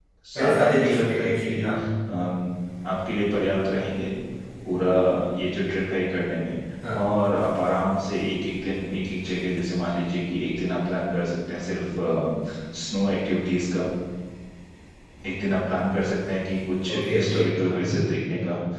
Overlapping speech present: Yes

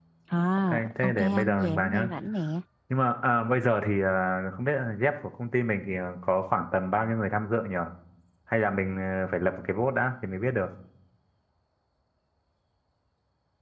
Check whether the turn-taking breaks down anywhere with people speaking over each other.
Yes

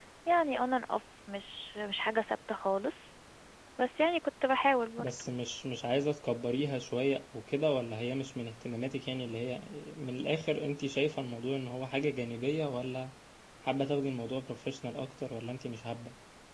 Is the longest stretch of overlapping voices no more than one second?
Yes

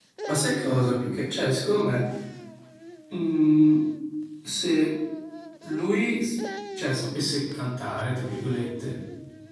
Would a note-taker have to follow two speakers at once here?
No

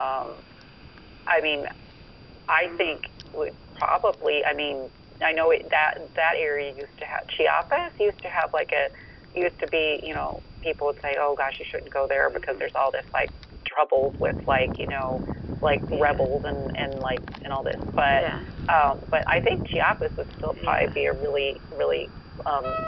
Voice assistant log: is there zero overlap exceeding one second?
Yes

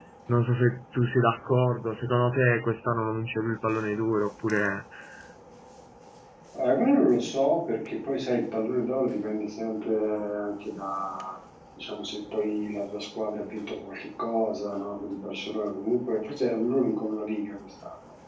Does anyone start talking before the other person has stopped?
No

